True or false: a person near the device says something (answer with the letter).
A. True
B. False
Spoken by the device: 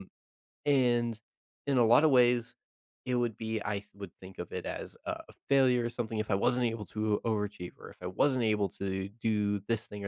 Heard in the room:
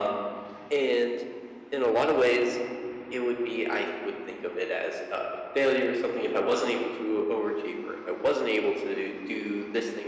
B